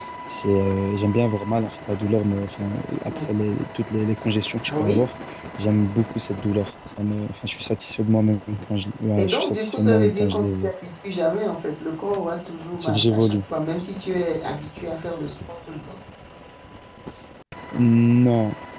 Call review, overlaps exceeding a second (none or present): present